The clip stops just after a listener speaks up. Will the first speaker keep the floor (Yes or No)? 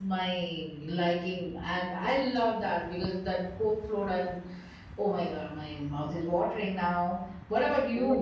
No